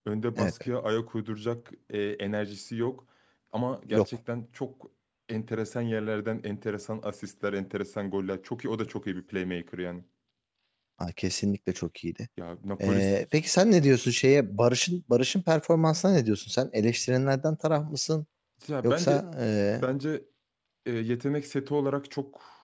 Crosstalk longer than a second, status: none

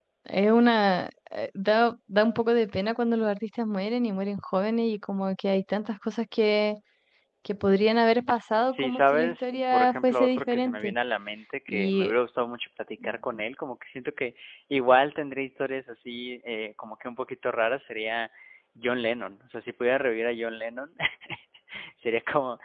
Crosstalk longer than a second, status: present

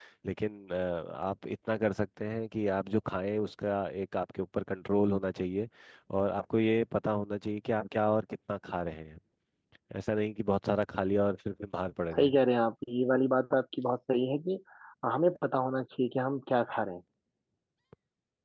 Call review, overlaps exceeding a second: none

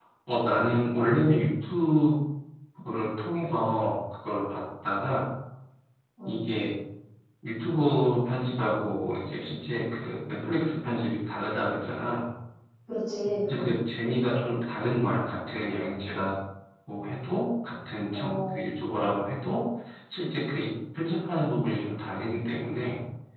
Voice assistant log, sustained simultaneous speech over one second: none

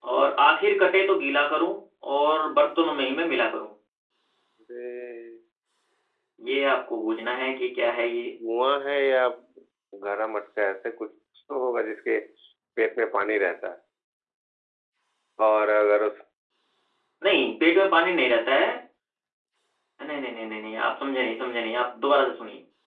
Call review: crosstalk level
none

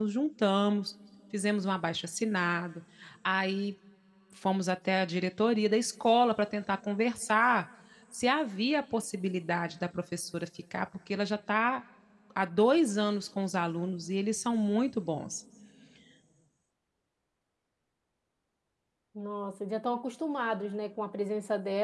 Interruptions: none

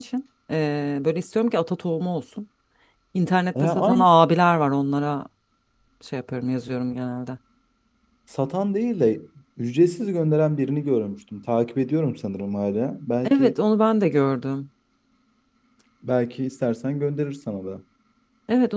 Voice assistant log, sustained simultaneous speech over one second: none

